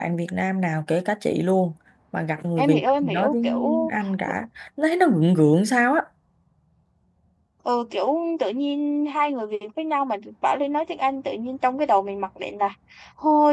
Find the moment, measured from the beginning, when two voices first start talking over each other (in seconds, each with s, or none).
2.6 s